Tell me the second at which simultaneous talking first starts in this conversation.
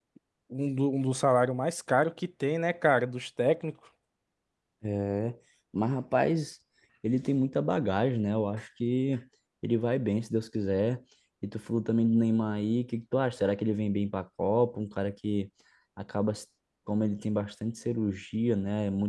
none

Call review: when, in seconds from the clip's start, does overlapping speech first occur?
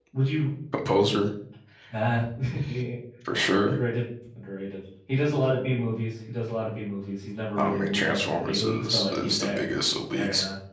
7.6 s

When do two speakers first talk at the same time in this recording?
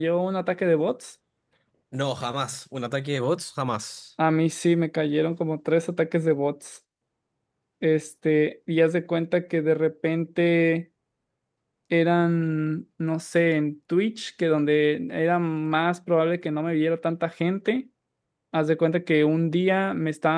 none

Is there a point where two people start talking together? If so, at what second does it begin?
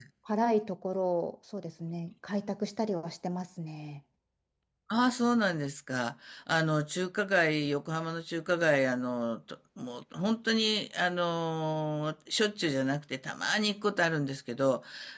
none

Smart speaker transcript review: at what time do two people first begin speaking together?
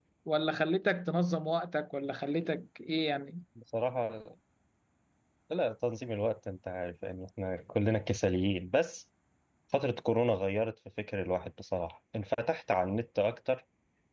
none

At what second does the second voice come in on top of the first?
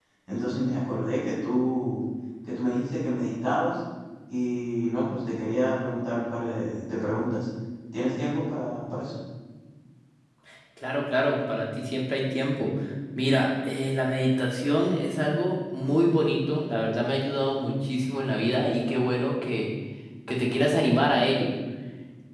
none

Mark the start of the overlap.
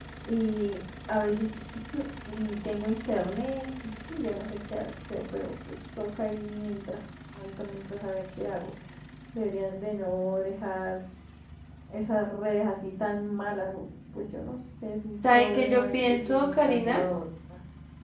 15.2 s

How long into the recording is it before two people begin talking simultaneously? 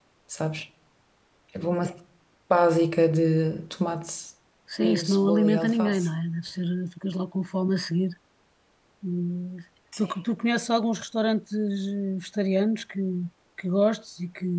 4.8 s

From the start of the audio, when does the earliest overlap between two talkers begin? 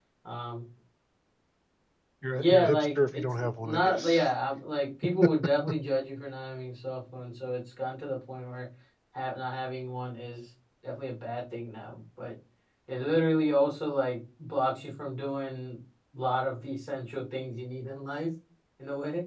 2.3 s

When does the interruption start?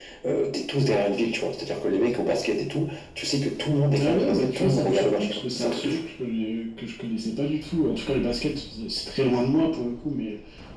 3.9 s

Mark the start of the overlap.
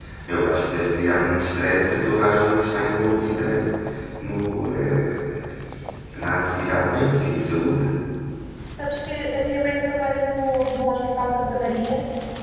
none

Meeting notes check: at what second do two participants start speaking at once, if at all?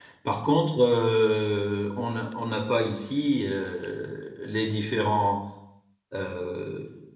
none

